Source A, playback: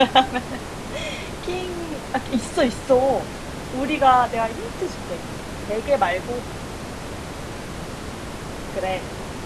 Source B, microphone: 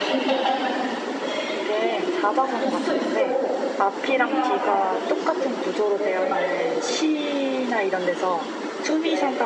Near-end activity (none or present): present